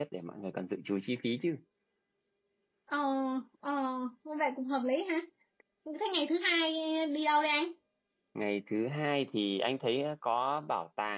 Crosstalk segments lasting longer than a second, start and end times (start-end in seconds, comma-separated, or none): none